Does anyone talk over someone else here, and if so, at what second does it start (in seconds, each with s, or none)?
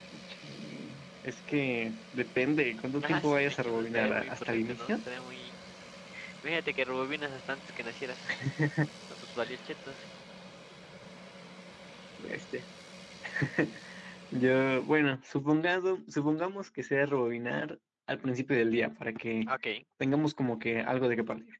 3.0 s